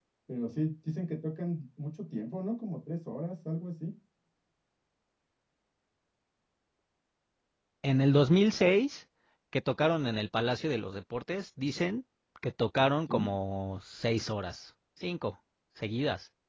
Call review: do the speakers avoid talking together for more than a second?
Yes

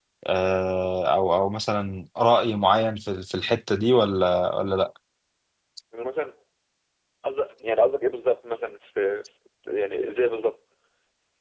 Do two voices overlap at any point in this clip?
No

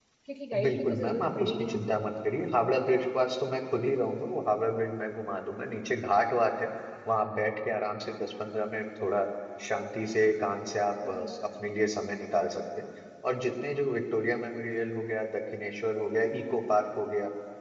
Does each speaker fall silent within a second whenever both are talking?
No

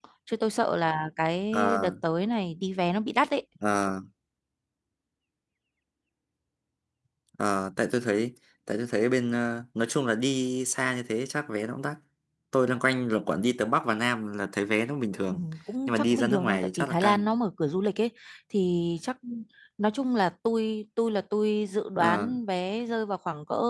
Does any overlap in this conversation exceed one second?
Yes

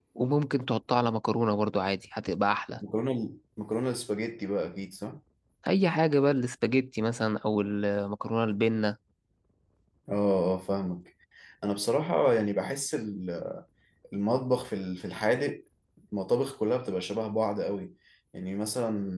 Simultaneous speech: No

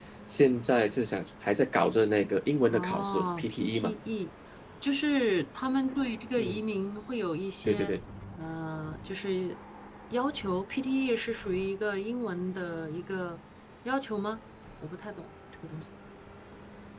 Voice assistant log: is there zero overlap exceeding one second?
No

